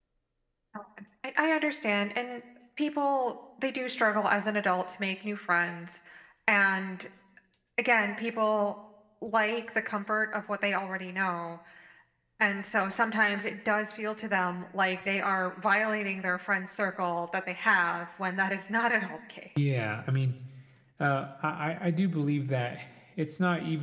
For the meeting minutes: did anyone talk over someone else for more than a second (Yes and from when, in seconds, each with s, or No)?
No